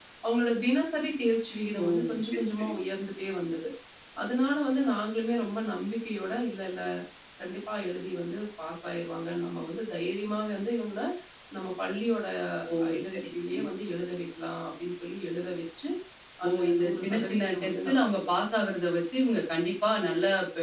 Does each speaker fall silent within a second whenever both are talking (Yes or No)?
No